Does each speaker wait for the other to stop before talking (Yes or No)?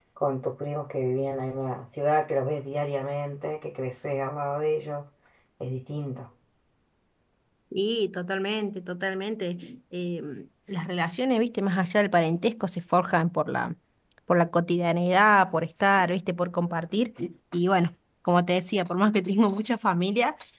Yes